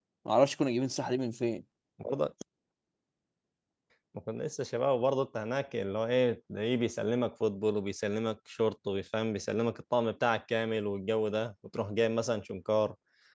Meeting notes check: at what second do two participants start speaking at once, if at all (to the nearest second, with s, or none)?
none